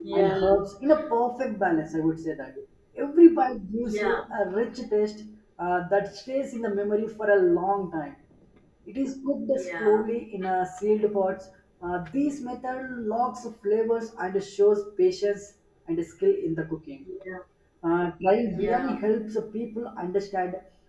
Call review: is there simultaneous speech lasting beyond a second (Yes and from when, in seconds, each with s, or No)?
No